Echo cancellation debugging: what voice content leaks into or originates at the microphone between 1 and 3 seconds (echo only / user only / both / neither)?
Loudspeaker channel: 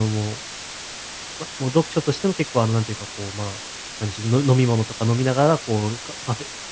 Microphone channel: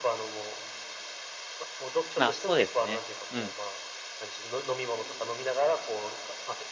both